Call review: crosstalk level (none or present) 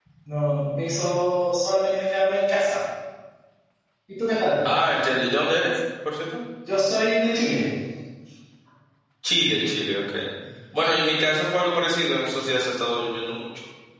none